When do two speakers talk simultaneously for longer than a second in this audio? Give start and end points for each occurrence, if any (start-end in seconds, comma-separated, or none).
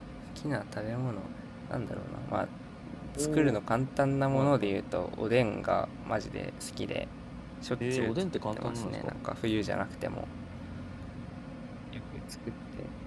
7.9-9.1